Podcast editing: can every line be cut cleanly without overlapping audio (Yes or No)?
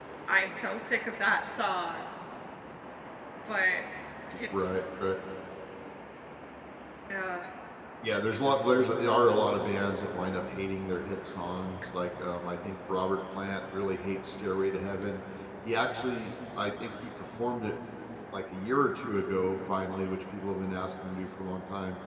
Yes